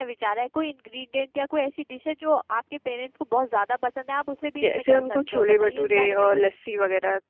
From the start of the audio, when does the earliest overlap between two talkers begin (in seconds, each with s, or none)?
4.6 s